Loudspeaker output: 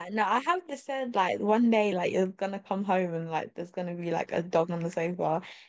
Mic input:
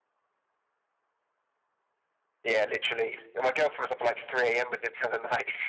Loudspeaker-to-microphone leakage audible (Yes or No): No